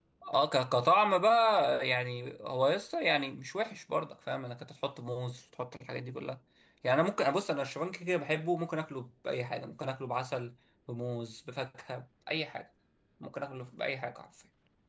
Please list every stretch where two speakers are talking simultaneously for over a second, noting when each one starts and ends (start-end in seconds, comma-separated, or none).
none